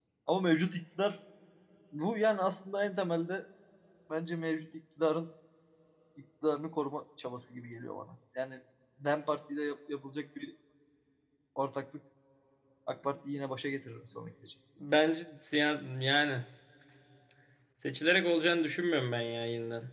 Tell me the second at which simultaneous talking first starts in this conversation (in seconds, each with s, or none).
none